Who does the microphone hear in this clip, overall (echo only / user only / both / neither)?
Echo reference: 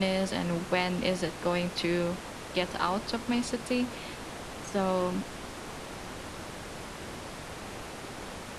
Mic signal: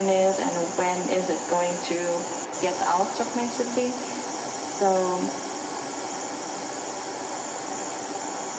echo only